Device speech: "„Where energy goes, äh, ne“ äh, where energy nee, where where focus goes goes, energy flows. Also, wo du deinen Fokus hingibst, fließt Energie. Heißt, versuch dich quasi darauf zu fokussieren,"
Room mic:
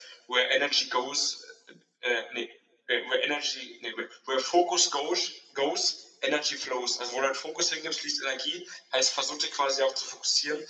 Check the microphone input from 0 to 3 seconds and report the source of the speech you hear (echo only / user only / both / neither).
echo only